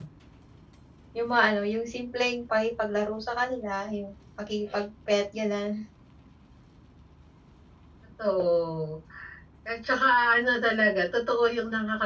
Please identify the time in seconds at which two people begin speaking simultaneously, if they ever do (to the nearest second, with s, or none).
none